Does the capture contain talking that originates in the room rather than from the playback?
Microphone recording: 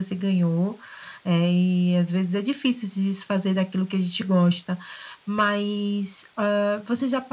No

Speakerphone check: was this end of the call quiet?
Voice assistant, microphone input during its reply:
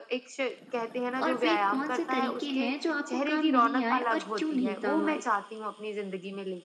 No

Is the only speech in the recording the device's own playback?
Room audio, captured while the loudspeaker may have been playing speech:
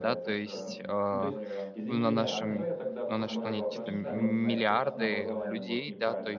No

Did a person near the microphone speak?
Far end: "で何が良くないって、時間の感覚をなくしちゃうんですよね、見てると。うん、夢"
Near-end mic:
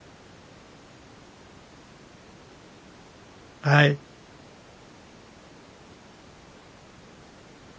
Yes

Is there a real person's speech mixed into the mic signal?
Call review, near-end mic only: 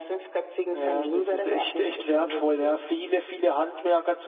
Yes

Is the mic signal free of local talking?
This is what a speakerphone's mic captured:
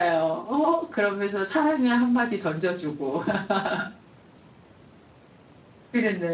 Yes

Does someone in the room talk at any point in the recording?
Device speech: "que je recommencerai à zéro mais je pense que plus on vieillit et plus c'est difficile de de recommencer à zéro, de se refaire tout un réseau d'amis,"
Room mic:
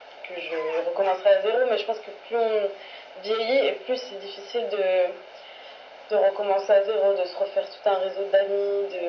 No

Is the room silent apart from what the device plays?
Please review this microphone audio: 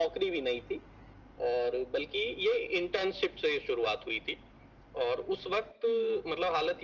No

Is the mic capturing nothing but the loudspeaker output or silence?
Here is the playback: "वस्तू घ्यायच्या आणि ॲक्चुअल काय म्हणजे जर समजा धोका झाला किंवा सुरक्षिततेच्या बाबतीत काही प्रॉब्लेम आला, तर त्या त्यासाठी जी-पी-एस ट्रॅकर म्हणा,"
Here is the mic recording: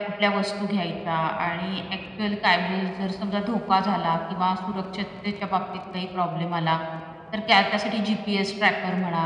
Yes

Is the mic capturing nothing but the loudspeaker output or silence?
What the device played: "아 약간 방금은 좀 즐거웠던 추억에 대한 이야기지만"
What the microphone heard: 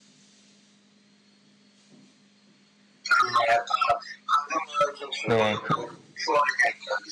No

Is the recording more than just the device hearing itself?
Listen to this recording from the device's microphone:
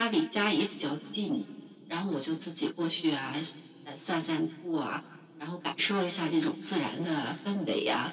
No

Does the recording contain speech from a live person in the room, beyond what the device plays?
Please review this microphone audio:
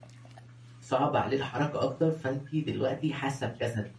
Yes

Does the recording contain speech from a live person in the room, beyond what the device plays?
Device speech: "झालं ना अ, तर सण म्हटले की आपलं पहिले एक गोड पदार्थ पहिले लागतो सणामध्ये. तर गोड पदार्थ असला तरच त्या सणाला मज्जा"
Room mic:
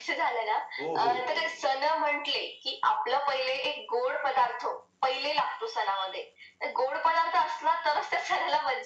Yes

